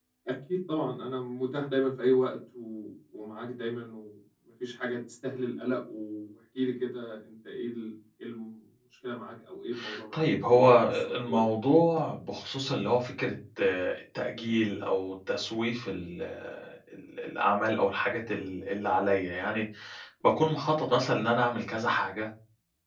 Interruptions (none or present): present